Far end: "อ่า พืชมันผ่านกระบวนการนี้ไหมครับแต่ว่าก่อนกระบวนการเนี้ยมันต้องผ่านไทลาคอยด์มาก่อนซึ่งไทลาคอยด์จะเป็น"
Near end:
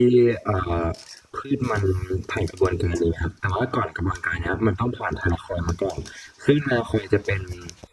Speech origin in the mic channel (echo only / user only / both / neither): echo only